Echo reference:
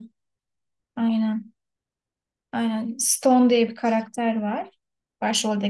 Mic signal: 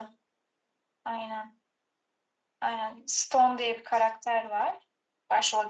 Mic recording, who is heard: echo only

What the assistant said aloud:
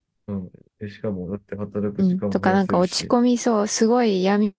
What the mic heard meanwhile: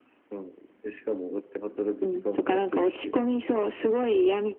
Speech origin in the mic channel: echo only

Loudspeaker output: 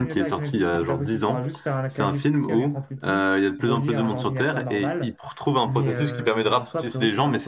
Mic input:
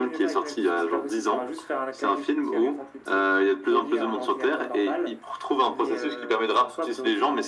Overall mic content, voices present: echo only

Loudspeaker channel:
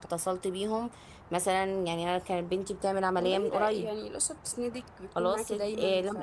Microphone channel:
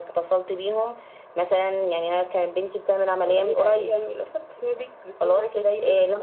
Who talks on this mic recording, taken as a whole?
echo only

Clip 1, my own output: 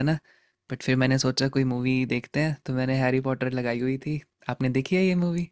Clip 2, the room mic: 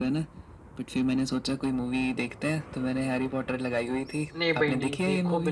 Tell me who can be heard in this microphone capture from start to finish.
both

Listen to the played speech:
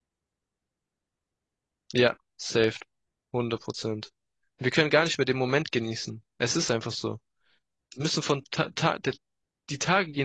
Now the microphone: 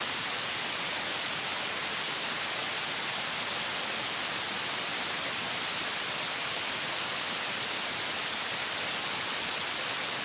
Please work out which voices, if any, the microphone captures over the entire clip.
neither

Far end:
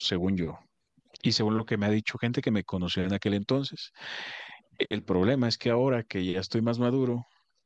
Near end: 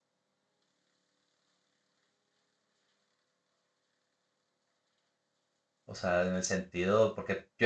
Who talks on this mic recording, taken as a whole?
user only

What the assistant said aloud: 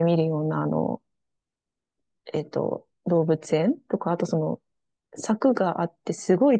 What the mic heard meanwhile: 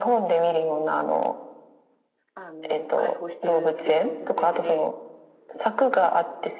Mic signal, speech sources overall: both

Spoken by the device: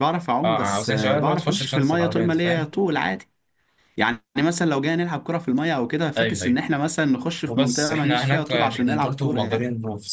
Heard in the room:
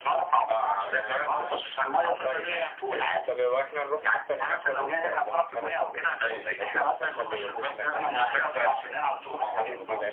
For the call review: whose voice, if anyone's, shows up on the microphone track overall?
both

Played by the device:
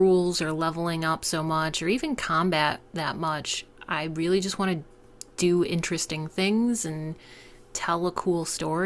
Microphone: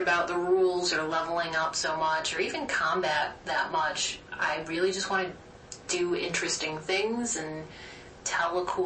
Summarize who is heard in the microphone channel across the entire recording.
echo only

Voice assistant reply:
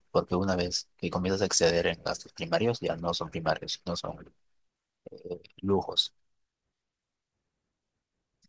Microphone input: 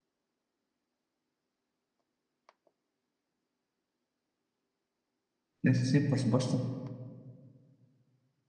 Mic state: user only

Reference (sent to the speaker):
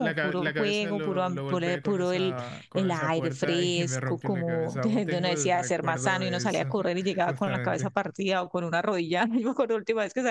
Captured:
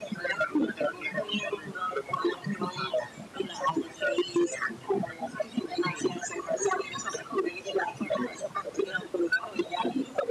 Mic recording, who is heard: echo only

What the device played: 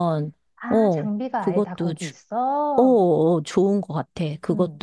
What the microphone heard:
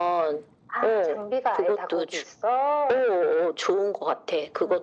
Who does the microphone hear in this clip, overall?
echo only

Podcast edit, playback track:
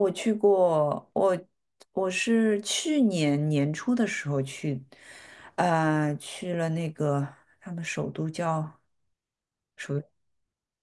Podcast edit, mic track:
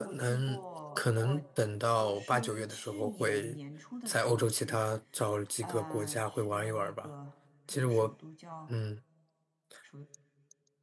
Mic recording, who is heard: both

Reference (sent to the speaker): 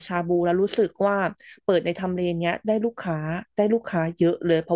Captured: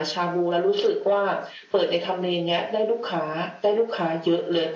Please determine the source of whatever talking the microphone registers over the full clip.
echo only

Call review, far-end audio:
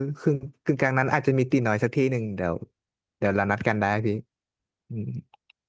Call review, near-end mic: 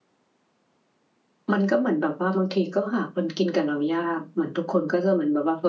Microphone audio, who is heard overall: user only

